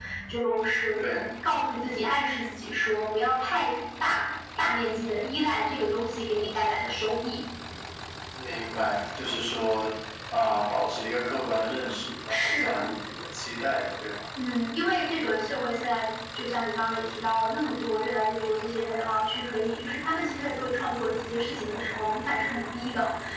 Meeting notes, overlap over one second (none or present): none